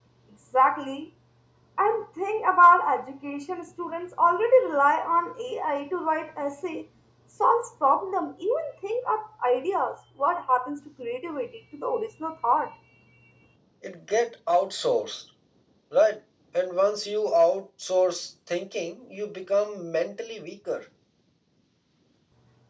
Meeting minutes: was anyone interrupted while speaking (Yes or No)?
No